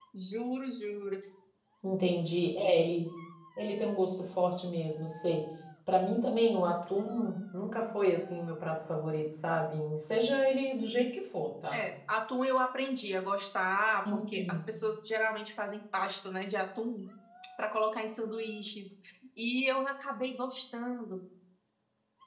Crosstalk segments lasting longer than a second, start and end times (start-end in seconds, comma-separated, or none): none